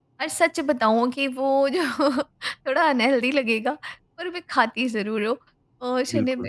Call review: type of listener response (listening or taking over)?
listening